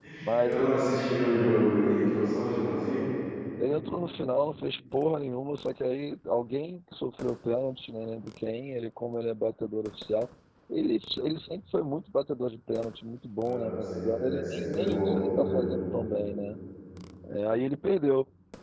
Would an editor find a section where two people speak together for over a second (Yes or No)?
Yes